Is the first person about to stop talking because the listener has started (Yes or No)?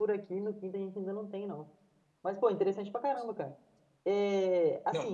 No